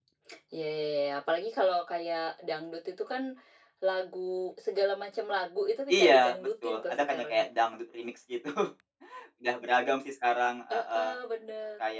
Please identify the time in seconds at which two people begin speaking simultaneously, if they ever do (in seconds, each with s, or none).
5.9 s